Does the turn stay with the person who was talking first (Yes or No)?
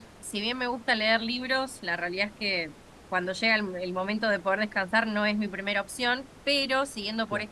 Yes